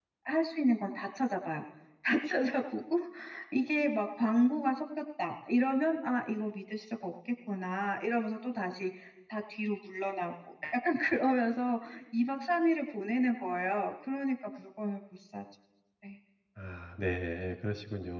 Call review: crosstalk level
none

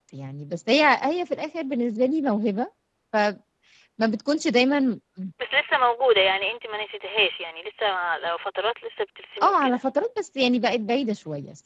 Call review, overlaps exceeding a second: none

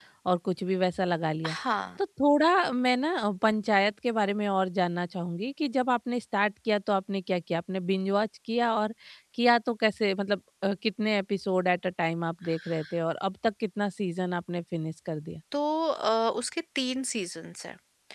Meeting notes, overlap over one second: none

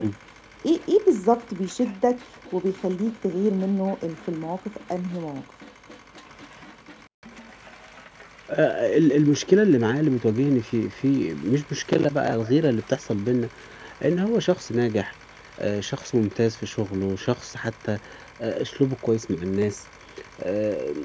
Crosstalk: none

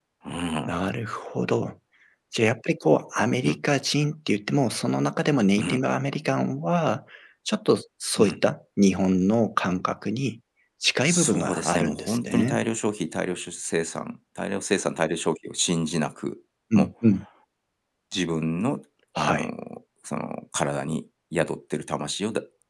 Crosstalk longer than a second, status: present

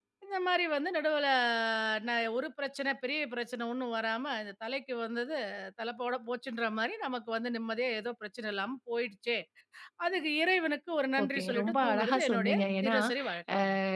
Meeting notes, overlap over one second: present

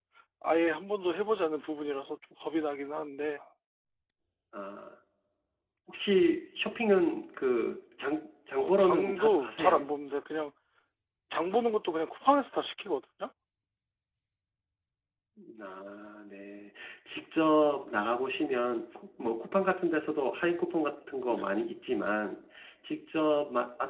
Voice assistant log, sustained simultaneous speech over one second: present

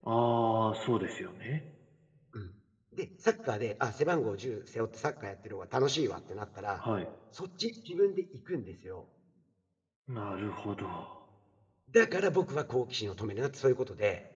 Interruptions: none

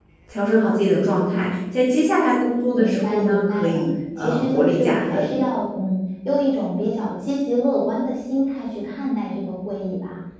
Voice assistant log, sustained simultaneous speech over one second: present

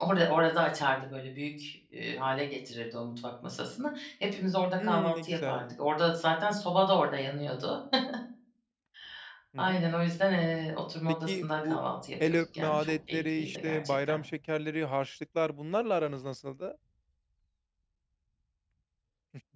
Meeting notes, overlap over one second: present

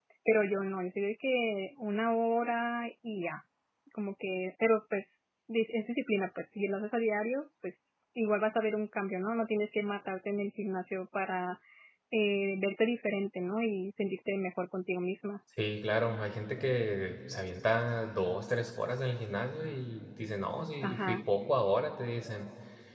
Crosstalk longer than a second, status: none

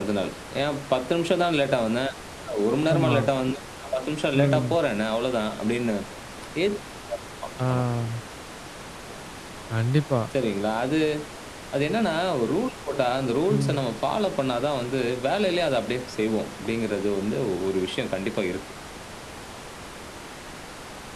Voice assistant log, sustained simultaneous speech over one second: none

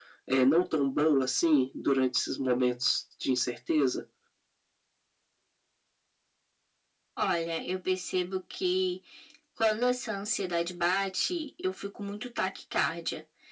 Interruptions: none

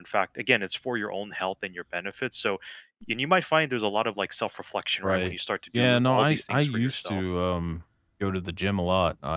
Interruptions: present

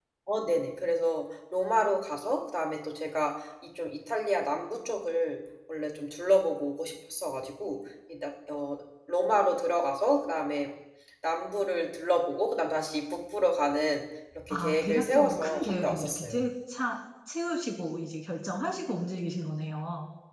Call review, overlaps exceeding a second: present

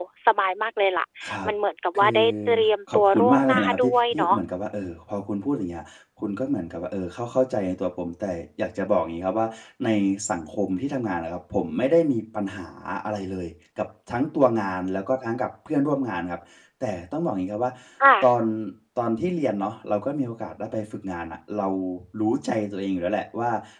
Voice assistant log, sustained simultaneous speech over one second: present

